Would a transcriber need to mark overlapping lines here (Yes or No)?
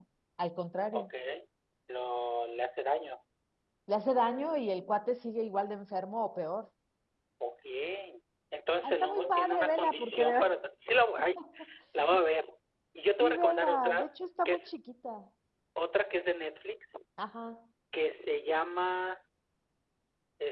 Yes